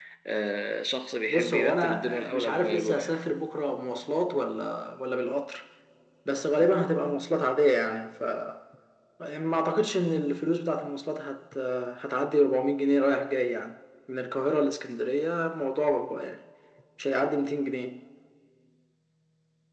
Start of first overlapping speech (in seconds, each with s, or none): 1.3 s